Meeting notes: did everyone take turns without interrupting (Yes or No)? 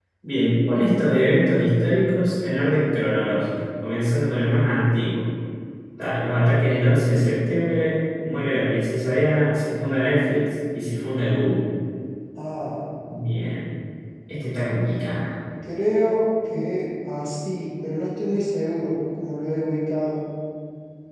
Yes